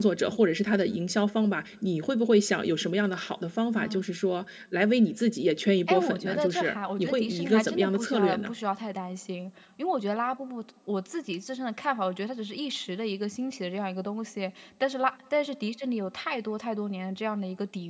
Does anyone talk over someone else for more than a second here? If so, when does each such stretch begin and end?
5.9-8.5

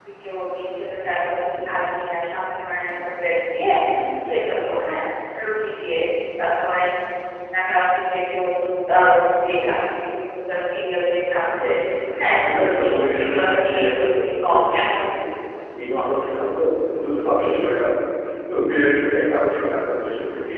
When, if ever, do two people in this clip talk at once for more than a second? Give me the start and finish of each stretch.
12.2-15.0

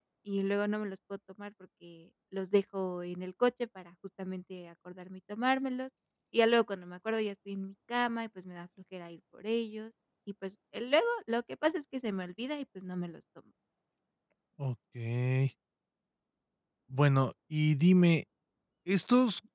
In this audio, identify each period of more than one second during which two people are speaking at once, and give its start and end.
none

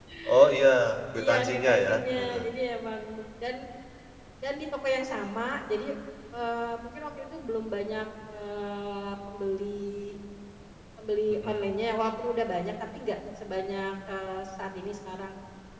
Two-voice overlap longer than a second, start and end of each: 1.2-2.5

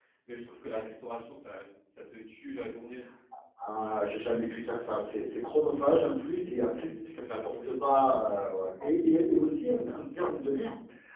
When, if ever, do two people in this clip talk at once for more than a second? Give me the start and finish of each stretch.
6.4-7.7

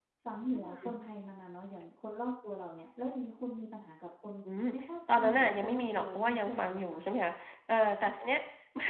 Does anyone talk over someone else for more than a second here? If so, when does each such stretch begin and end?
5.1-7.0

